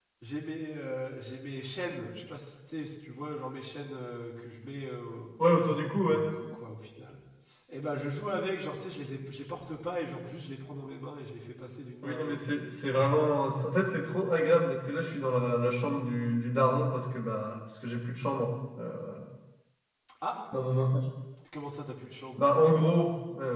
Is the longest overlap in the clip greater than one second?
No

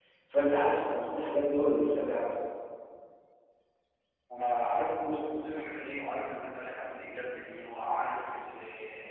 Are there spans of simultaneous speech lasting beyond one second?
No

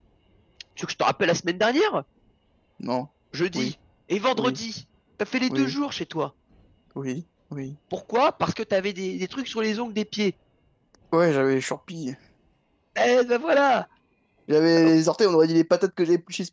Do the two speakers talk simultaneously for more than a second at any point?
No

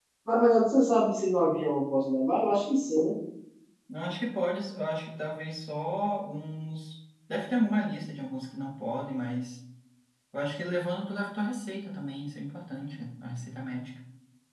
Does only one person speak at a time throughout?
Yes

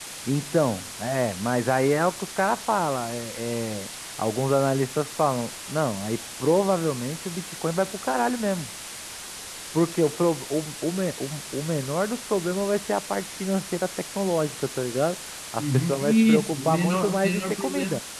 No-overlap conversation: No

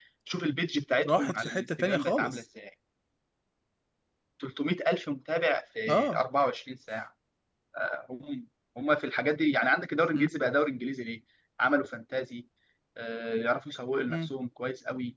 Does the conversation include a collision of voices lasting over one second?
Yes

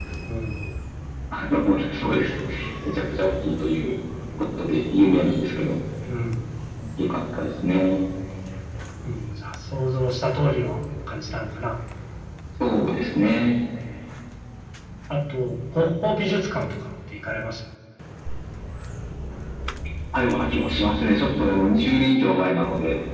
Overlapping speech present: No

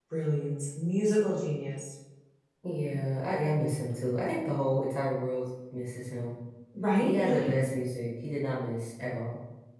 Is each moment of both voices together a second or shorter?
Yes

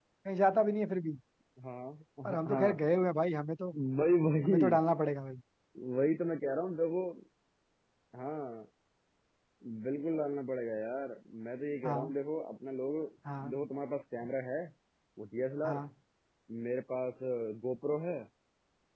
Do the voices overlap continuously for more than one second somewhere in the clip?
No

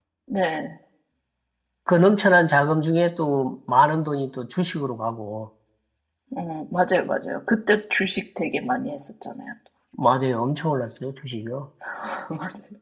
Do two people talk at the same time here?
No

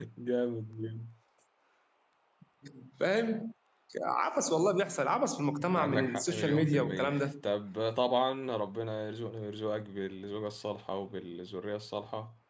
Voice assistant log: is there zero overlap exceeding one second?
No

